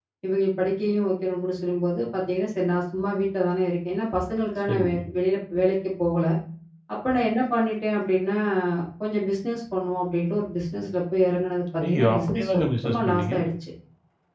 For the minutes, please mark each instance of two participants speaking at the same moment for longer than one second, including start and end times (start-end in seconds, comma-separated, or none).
11.8-13.4